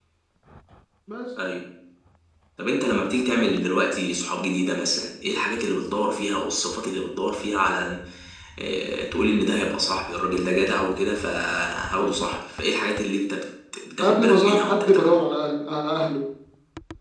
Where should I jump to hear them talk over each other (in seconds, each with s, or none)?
14.0 s